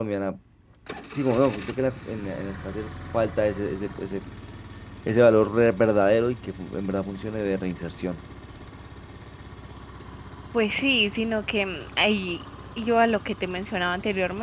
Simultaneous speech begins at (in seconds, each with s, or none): none